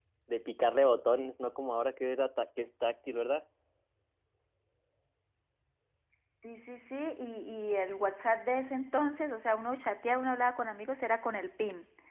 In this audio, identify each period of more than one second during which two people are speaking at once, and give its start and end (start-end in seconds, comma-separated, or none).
none